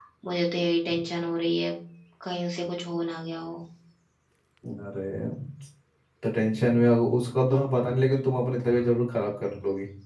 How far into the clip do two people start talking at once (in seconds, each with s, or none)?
none